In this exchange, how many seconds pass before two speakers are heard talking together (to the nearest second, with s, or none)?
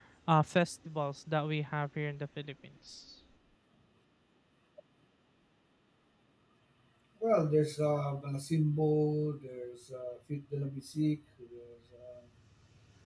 none